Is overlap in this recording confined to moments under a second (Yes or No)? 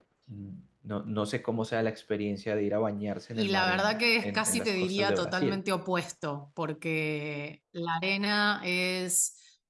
No